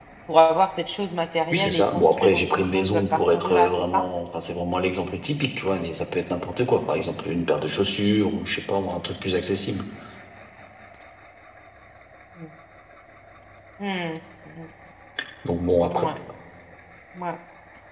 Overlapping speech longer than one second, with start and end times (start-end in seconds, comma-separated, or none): 1.5-4.0